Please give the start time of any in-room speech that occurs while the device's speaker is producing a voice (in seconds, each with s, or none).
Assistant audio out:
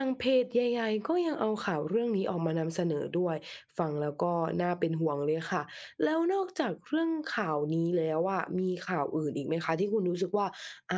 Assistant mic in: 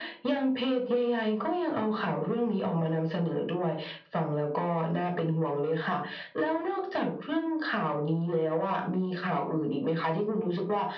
none